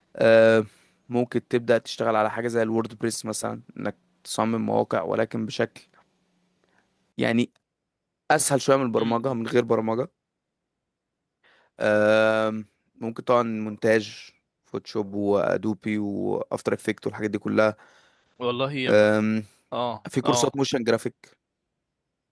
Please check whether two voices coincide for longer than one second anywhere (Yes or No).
No